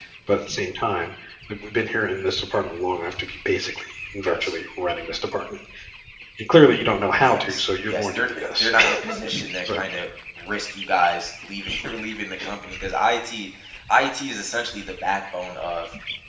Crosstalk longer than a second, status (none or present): present